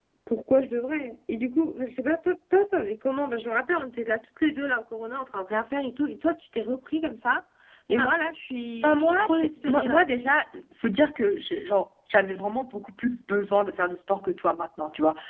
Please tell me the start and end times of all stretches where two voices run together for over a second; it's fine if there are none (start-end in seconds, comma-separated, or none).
8.8-10.1